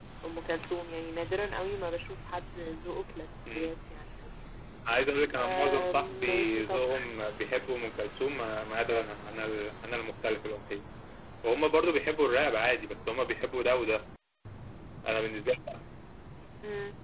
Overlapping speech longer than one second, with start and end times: 5.4-6.8

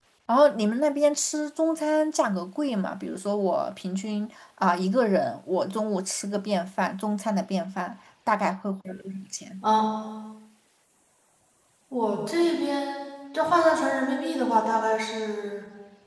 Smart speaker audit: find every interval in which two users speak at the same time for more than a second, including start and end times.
none

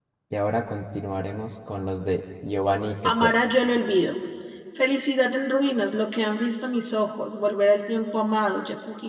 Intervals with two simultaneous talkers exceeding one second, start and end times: none

